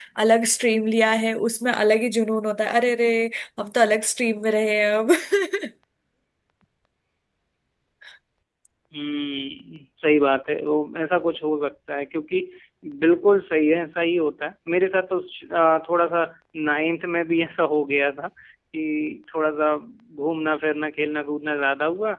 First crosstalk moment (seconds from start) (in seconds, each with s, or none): none